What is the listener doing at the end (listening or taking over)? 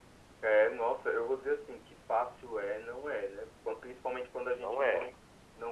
listening